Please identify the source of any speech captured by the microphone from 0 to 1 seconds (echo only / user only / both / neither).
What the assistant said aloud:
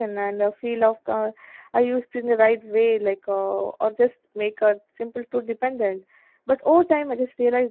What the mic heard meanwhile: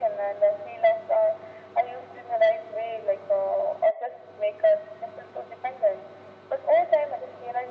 echo only